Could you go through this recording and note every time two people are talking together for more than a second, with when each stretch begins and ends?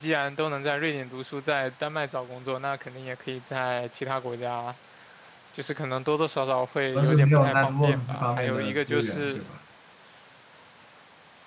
7.0-9.4

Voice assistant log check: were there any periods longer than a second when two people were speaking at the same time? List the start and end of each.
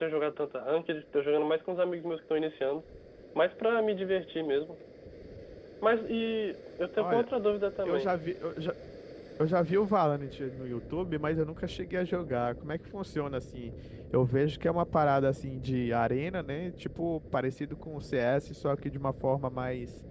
none

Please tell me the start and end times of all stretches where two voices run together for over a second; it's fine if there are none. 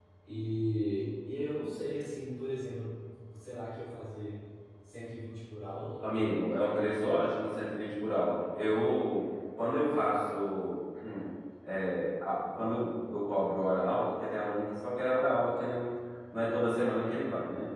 none

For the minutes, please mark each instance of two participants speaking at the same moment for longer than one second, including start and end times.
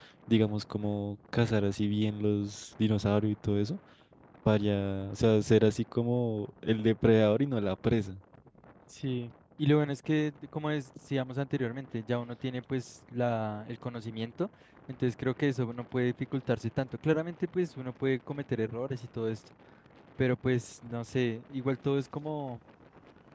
none

